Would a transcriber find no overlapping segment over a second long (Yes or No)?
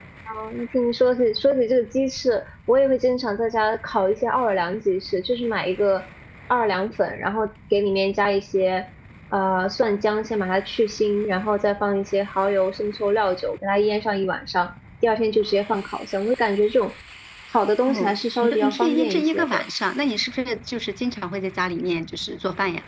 No